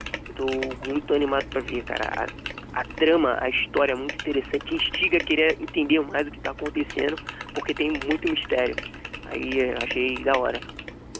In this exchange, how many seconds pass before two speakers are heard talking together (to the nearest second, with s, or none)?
none